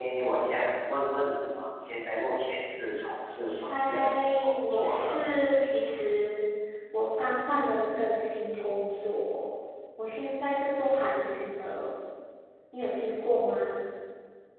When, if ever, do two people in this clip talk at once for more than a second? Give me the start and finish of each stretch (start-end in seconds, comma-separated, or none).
3.7-5.2